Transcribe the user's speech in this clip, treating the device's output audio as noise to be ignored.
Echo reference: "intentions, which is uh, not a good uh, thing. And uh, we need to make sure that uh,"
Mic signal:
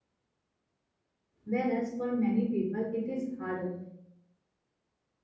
Whereas for many people, it is harder

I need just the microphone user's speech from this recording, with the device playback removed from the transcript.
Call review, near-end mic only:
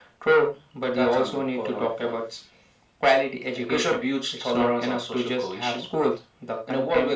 none

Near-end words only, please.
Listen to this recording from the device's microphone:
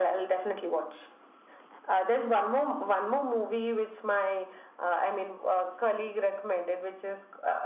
none

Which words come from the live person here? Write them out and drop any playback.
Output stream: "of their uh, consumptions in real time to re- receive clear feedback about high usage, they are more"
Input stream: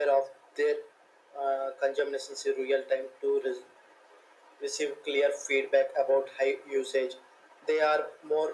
none

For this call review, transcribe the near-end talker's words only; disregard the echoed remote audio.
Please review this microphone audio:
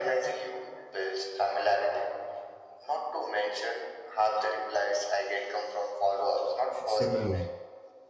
simulum.

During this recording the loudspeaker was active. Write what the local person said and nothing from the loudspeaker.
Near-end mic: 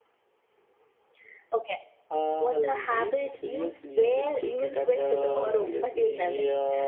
and uh,

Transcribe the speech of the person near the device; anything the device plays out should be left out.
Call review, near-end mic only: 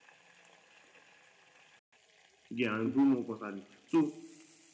you get and grow more constantly so

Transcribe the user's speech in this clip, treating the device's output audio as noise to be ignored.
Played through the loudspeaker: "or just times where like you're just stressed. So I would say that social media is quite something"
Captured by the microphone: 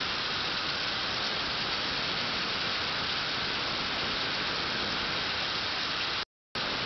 none

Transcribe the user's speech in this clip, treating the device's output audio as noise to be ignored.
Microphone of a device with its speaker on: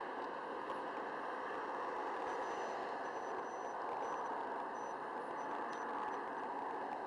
none

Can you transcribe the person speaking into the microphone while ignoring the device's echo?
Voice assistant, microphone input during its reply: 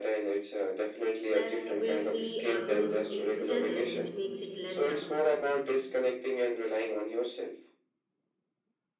Plus, we'd be uh, doing it together, which makes it less daunting.

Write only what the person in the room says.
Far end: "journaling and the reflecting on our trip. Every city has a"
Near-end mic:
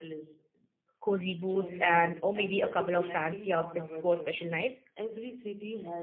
cozy boots and or maybe a couple of fancy outfits for special nights

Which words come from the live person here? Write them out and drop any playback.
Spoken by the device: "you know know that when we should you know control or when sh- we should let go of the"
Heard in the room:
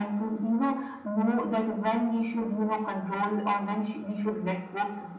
none

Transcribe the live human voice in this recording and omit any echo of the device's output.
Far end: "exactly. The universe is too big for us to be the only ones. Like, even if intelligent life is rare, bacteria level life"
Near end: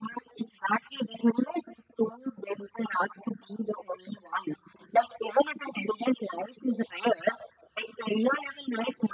none

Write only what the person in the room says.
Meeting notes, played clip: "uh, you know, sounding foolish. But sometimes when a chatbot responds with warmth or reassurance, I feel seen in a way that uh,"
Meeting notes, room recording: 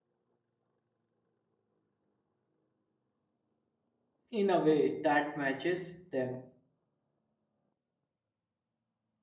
in a way that matches them

